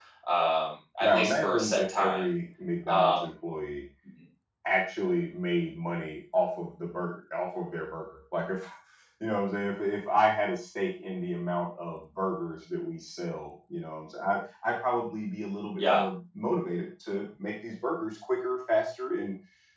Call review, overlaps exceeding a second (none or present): present